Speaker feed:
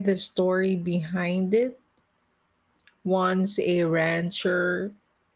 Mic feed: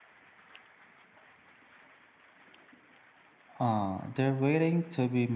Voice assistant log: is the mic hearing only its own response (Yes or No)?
No